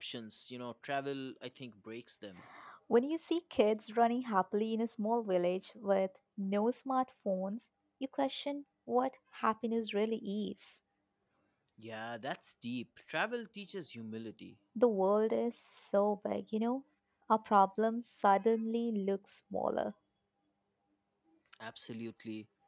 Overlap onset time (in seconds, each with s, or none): none